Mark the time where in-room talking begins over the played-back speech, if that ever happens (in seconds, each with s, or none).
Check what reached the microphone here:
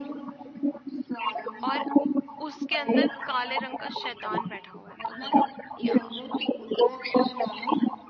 1.6 s